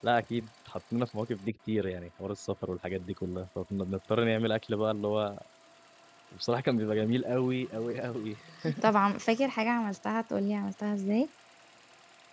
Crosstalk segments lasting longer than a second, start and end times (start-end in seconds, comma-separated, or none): none